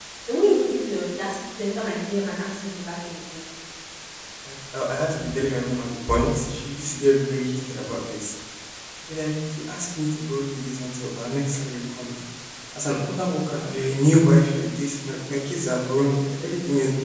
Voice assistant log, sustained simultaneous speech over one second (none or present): none